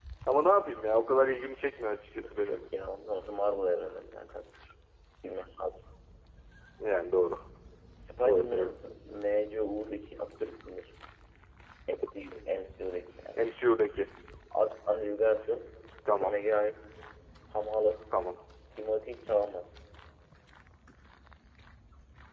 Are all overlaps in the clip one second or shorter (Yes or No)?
Yes